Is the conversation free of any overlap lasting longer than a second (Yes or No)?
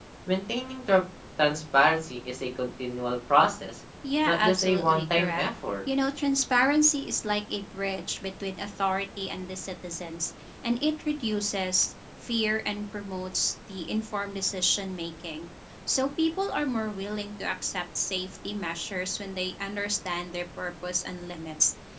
No